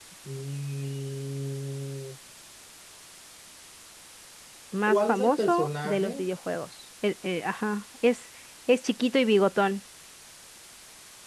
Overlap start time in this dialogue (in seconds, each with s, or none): 4.9 s